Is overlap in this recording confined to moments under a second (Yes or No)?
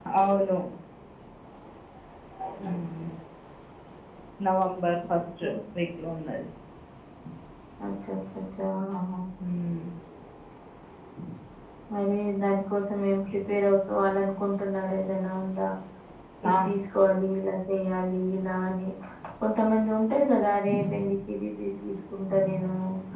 Yes